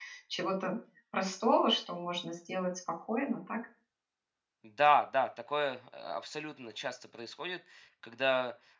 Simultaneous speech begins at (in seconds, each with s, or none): none